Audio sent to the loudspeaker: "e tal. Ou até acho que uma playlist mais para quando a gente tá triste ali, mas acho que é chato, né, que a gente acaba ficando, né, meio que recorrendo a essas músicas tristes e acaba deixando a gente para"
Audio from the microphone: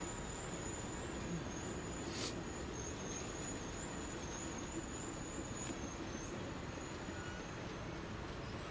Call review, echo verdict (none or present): none